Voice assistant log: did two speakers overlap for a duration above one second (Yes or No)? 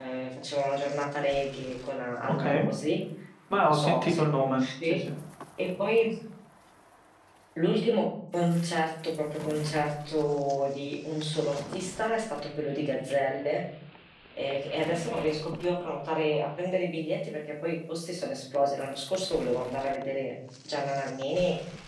Yes